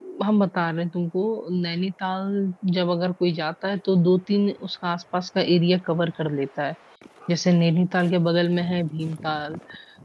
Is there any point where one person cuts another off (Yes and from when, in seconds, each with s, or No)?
No